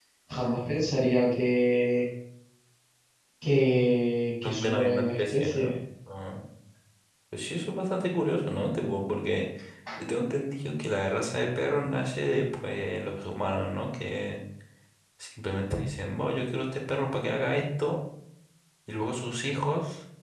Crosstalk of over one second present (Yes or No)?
Yes